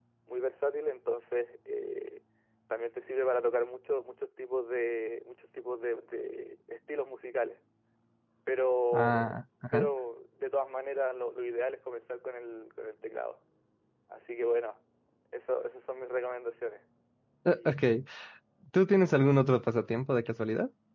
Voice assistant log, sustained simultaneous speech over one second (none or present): none